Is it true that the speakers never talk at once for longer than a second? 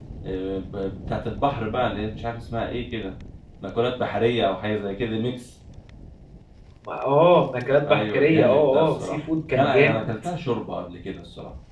No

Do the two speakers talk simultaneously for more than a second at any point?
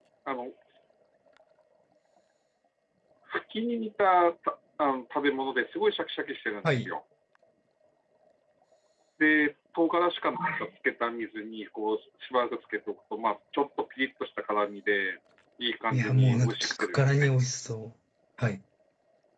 Yes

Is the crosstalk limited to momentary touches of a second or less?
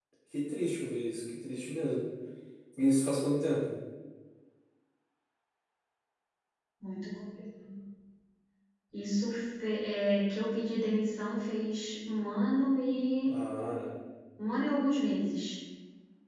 Yes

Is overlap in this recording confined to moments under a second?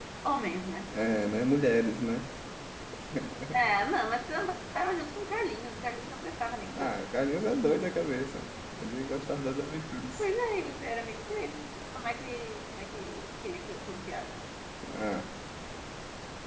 Yes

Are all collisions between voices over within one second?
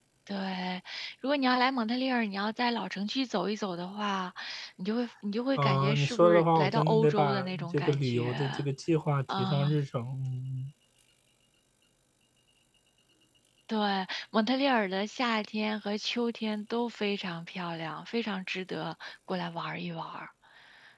No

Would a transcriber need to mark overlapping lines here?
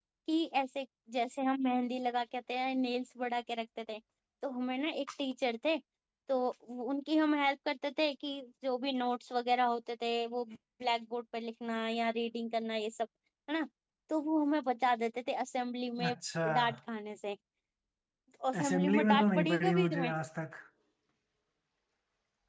Yes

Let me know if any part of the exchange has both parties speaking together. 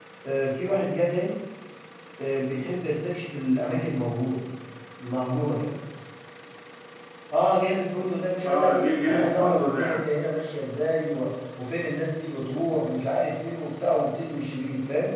Yes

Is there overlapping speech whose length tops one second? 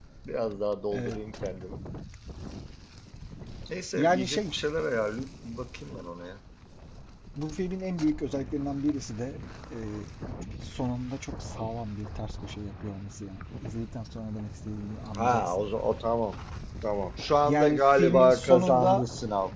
Yes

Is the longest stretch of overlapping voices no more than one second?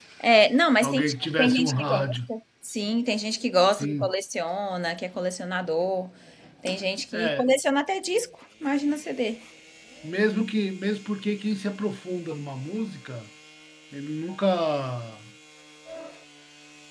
No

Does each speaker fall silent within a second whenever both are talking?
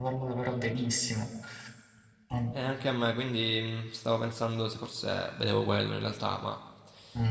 Yes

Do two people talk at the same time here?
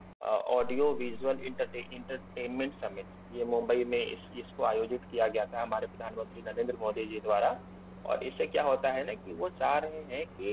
No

